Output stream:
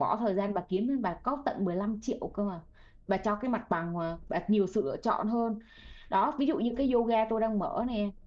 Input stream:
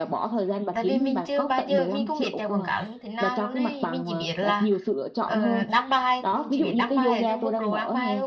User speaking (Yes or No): Yes